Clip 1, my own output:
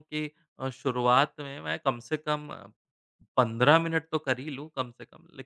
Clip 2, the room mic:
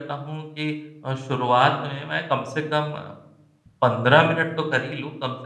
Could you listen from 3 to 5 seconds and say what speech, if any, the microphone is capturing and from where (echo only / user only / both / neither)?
echo only